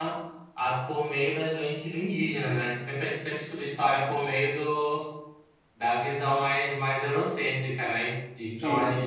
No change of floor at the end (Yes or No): Yes